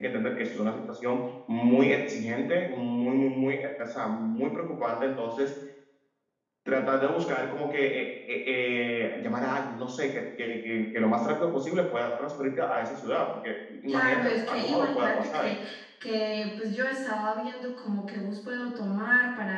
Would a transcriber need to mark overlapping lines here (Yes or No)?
Yes